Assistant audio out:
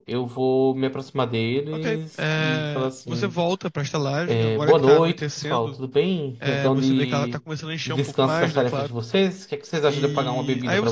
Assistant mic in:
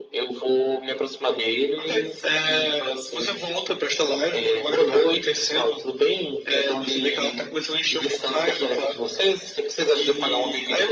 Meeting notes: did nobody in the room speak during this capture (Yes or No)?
Yes